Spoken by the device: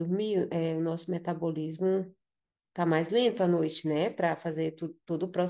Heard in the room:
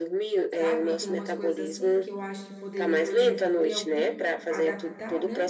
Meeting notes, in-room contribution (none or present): present